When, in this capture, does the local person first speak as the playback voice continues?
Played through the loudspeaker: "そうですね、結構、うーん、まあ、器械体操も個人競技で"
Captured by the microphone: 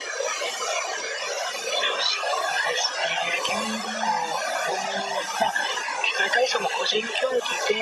3.5 s

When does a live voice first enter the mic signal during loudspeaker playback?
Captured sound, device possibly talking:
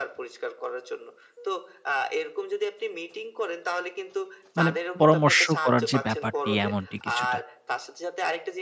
4.6 s

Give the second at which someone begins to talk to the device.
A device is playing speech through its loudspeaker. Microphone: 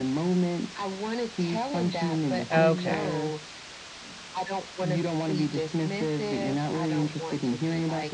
2.5 s

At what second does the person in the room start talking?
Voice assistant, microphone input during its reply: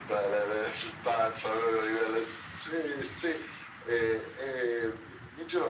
none

